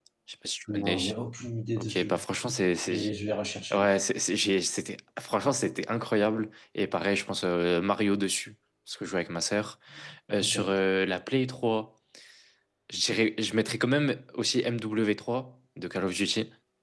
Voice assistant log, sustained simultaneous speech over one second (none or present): none